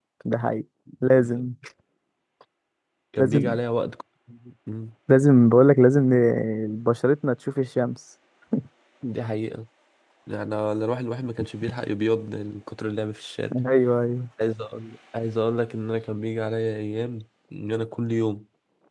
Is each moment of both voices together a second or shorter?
Yes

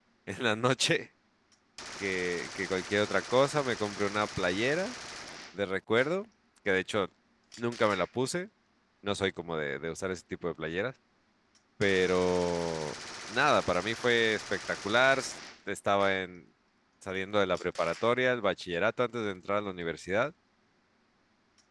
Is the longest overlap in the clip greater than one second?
No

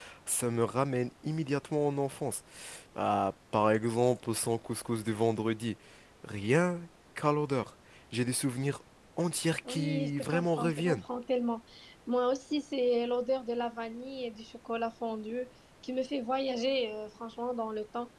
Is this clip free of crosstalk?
No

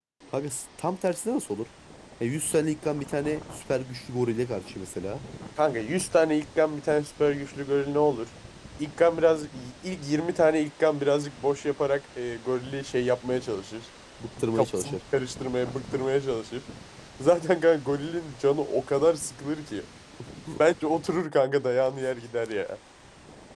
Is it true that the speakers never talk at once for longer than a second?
Yes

